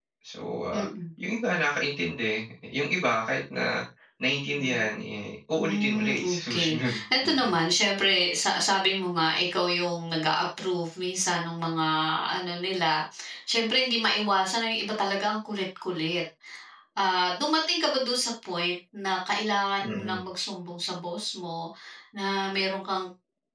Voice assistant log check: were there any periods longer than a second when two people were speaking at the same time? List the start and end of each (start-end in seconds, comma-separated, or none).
5.5-7.6